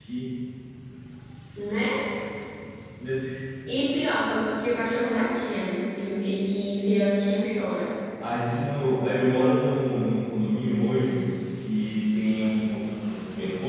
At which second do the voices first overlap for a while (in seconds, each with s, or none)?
none